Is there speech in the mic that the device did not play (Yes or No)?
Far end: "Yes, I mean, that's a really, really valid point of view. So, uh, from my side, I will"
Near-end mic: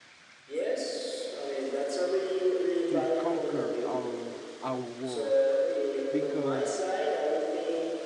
Yes